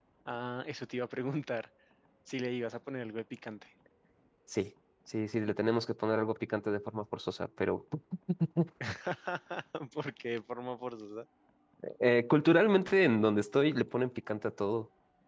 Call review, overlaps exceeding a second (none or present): none